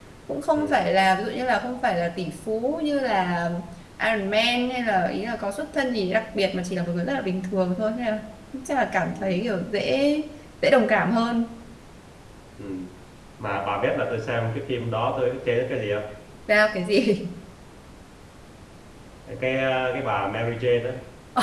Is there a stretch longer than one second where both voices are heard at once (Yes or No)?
No